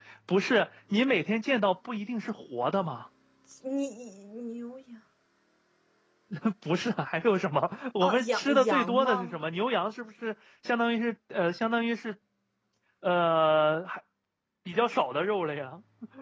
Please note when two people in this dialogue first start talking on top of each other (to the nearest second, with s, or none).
8 s